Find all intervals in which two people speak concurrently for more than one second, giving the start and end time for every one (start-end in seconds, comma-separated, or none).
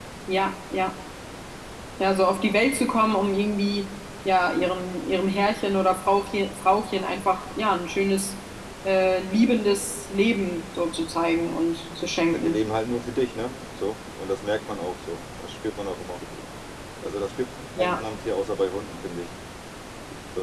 none